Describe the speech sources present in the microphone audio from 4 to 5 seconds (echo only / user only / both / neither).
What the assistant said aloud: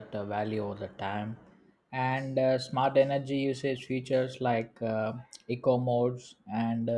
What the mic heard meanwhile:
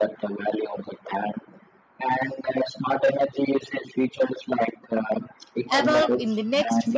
echo only